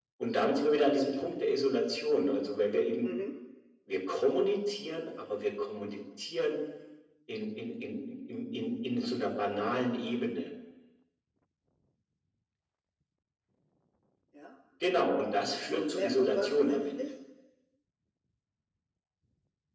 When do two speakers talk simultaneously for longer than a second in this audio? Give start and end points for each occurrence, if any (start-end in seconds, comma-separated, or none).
15.7-17.1